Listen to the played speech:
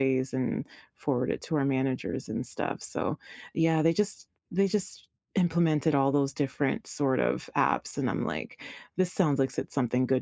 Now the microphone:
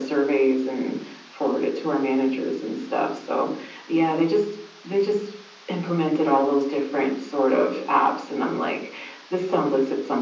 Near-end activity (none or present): none